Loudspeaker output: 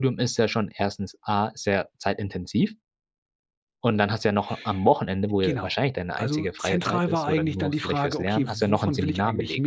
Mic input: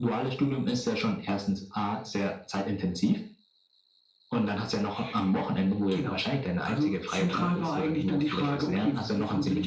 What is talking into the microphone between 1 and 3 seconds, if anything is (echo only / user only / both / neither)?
echo only